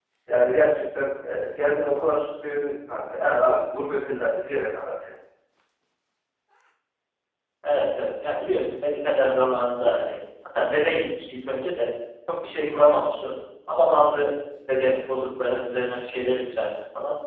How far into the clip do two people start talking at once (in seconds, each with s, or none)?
none